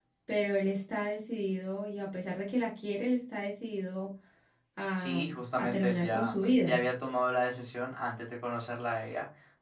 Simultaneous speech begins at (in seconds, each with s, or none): 5.0 s